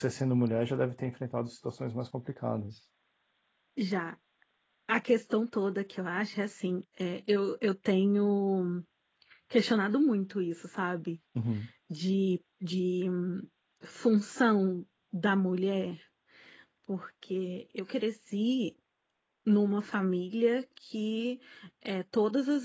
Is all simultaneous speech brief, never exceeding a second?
Yes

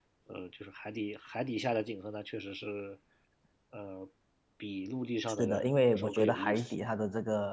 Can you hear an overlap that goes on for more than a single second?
Yes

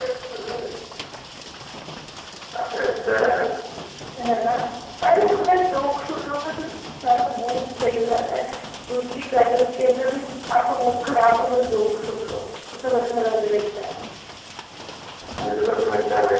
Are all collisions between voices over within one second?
Yes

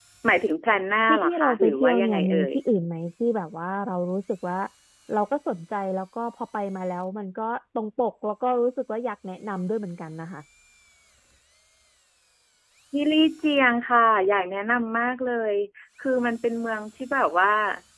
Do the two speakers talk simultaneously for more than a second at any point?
Yes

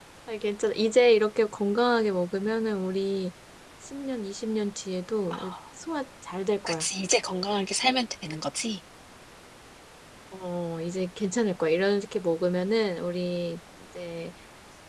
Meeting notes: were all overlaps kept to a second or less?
Yes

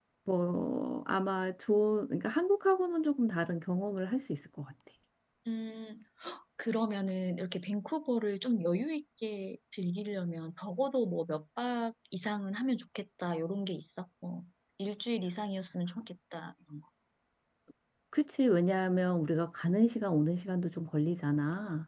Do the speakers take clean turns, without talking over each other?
Yes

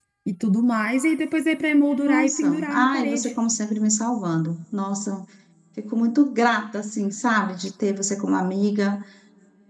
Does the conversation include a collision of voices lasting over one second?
Yes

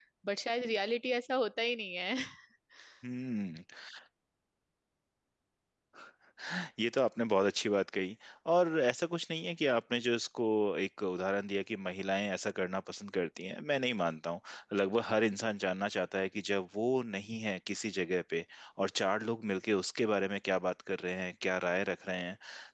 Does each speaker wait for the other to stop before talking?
Yes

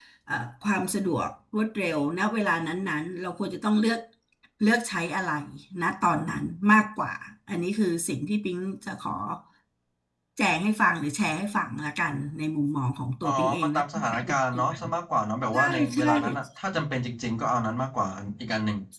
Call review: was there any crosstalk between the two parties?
Yes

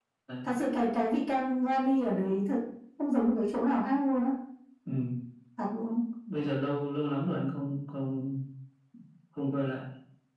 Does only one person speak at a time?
Yes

